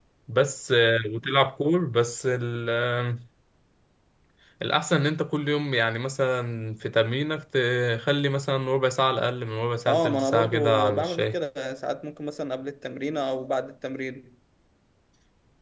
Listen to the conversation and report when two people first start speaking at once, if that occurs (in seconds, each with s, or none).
9.9 s